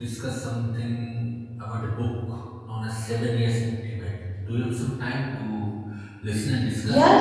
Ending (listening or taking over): taking over